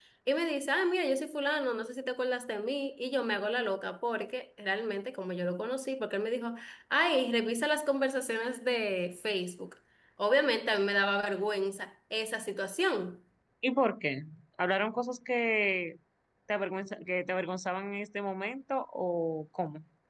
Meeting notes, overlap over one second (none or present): none